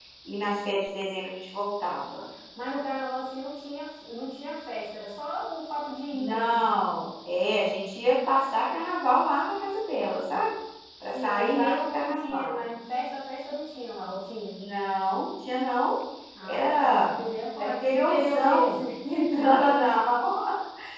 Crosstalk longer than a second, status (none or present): present